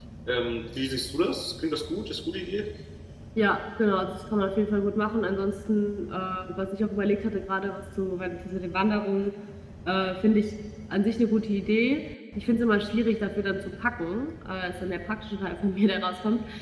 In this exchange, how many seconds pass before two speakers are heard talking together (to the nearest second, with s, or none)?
none